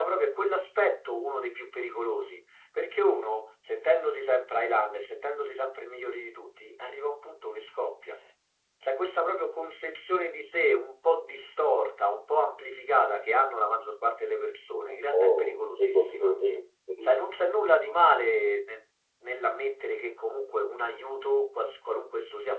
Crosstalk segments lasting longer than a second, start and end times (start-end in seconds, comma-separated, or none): 14.9-16.3